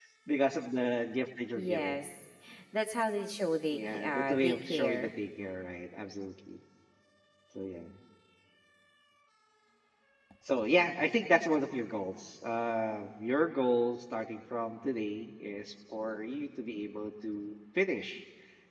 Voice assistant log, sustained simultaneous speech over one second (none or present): present